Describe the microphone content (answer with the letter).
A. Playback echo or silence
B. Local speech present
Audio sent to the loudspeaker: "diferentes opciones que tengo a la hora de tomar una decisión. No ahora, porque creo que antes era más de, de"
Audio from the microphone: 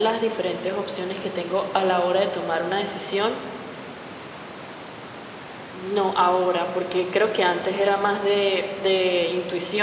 A